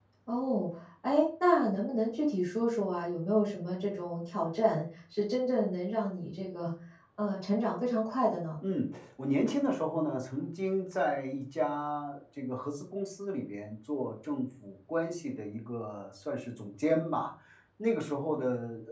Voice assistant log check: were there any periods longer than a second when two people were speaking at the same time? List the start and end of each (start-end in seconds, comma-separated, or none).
none